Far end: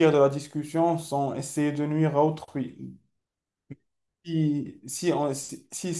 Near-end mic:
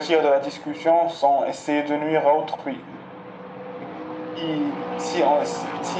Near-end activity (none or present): none